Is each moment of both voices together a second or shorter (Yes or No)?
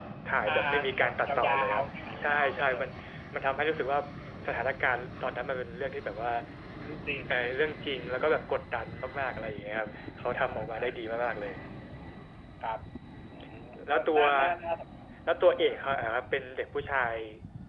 No